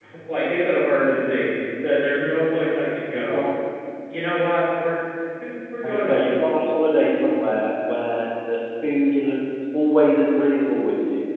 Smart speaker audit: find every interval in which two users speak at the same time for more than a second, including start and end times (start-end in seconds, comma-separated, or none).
none